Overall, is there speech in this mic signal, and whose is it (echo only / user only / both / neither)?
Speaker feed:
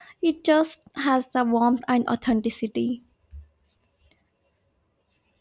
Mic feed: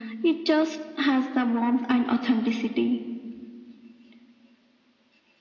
echo only